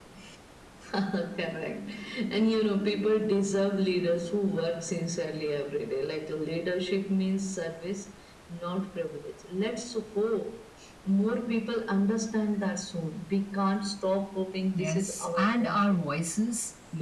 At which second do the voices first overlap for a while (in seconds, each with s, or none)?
14.7 s